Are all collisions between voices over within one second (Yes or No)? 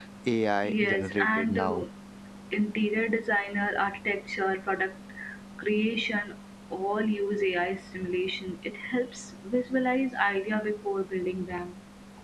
No